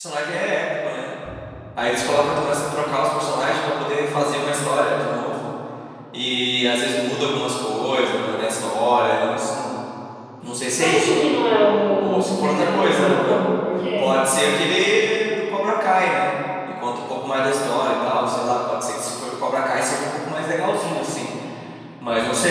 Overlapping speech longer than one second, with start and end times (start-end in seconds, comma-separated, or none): 12.0-13.3